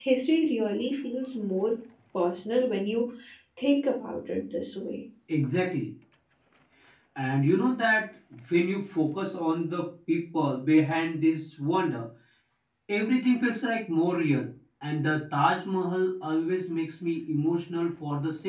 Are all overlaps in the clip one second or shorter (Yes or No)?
Yes